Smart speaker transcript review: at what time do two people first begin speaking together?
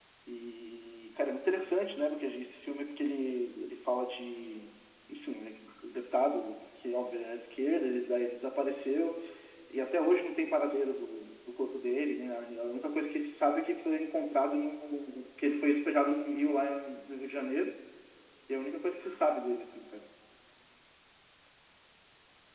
none

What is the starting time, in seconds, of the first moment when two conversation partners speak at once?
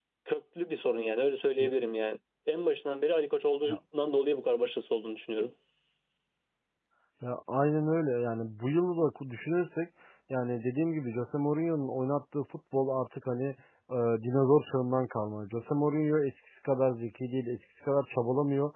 none

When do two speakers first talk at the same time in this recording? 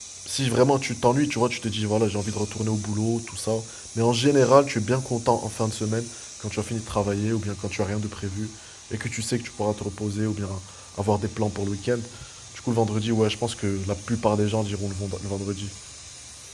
none

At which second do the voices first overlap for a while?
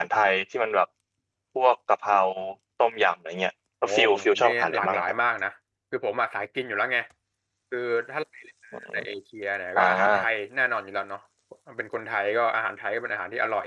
3.8 s

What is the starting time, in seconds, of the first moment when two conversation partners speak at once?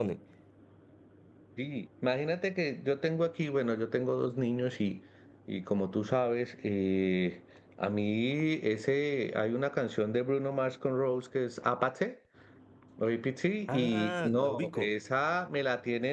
13.7 s

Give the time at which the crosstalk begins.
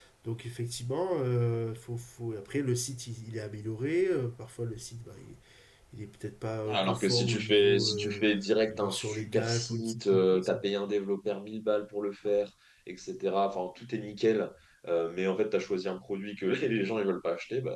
6.7 s

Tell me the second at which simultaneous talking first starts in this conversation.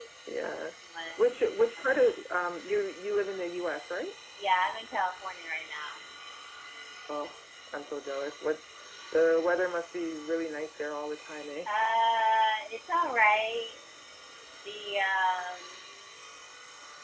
none

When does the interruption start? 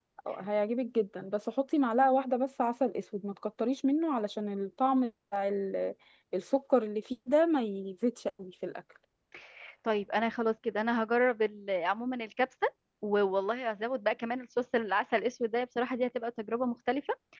none

